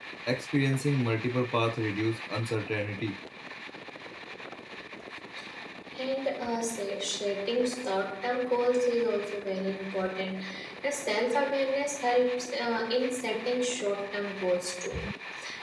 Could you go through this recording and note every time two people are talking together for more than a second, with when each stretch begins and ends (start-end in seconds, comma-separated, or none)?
none